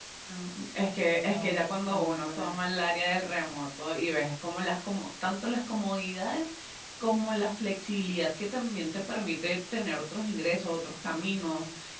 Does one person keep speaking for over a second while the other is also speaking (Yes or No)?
Yes